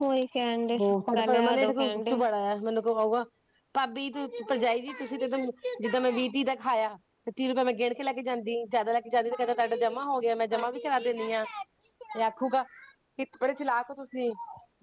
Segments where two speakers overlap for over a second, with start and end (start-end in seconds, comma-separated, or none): 0.8-2.2